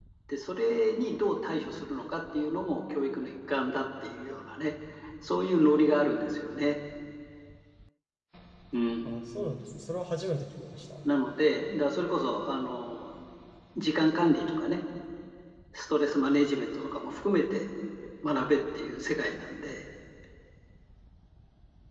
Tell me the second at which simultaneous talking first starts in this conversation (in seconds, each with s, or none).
none